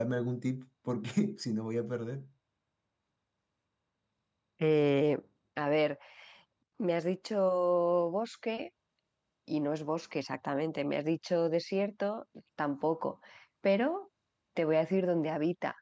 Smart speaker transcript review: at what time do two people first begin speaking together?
none

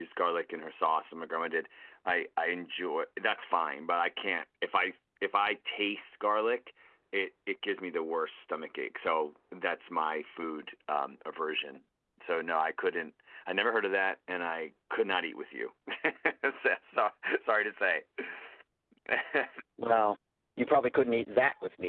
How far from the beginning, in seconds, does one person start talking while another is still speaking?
none

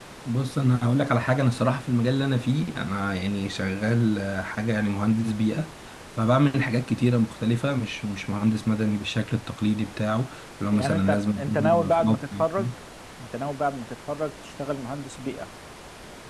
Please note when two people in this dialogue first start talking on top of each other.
10.7 s

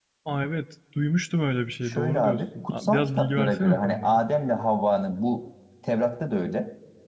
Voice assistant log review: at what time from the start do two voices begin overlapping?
1.8 s

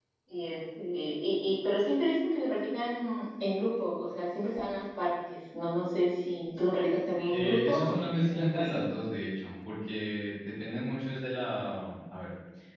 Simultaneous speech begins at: 7.3 s

